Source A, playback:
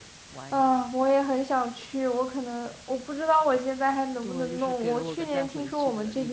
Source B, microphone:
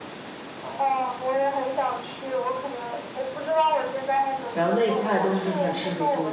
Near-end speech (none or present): present